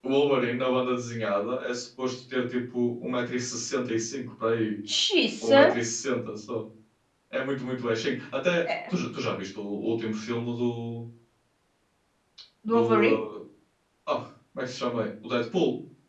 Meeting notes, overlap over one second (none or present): none